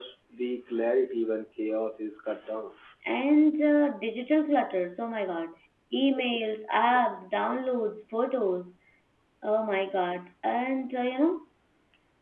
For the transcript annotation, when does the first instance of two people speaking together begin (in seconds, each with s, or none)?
none